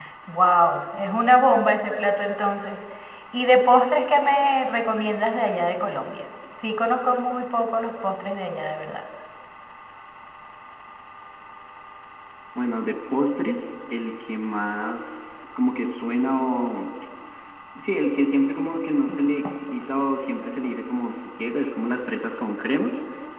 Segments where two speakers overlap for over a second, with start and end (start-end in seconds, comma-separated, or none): none